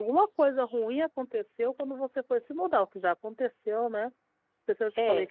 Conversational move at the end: listening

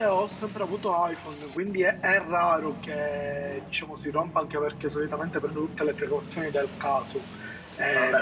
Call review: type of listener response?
taking over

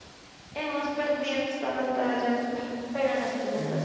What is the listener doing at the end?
listening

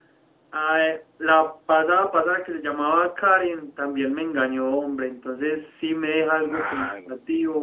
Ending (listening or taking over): listening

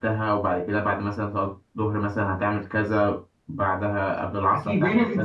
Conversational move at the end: taking over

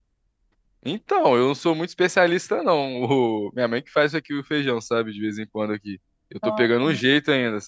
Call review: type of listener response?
listening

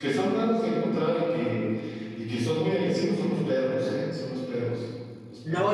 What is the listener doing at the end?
taking over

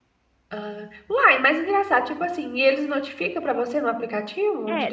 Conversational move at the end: taking over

